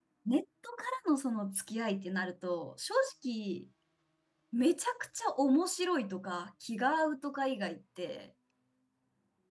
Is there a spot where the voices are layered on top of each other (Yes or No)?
No